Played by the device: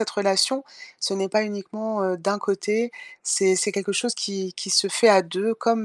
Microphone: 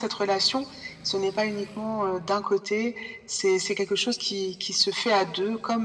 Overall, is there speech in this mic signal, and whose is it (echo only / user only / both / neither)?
echo only